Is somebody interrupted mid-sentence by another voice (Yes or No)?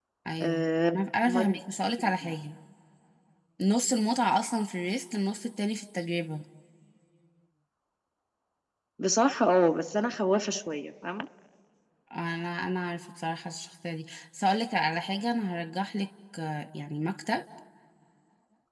Yes